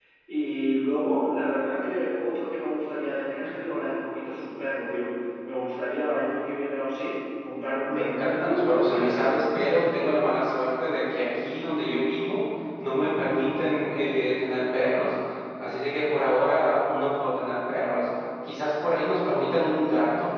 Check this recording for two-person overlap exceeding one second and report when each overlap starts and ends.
7.9-9.4

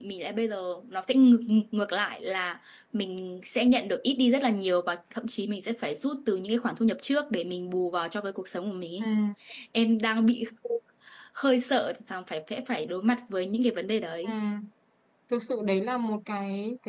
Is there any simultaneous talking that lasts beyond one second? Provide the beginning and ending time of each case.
none

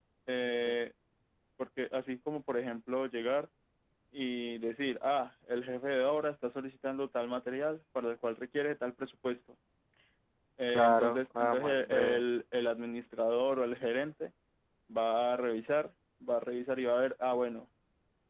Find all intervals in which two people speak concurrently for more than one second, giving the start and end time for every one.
10.7-12.2

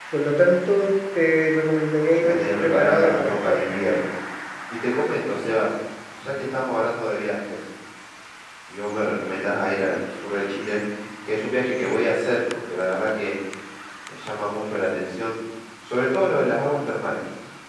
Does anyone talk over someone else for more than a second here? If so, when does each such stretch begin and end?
2.1-3.7

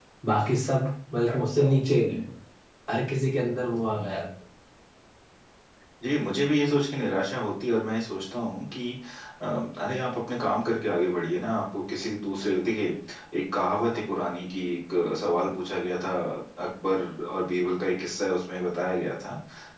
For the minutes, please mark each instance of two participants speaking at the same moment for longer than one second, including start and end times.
none

